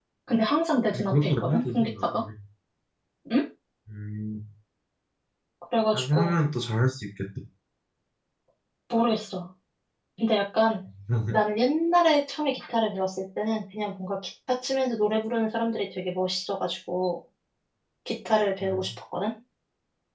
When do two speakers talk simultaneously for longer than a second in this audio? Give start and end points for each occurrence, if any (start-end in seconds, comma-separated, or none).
0.9-2.2